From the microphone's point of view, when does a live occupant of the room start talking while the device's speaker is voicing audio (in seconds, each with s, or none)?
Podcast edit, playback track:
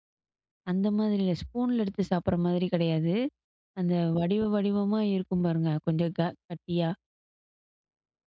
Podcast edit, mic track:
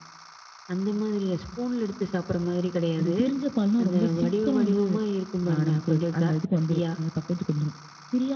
3.0 s